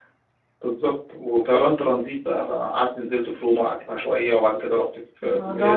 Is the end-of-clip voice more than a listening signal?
Yes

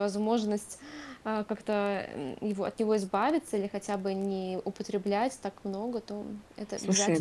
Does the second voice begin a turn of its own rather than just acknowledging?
Yes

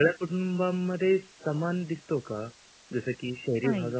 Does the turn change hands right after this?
No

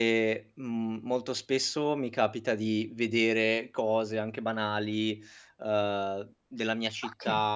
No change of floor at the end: Yes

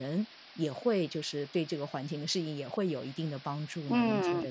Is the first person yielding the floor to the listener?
Yes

